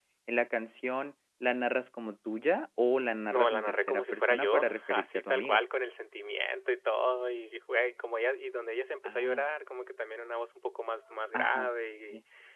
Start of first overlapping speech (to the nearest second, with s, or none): 3 s